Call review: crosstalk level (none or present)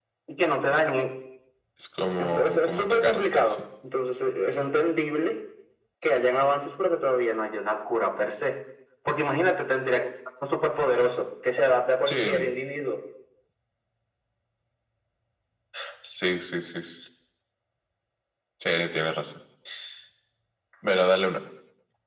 present